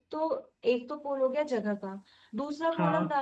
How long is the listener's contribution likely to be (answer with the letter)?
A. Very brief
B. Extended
A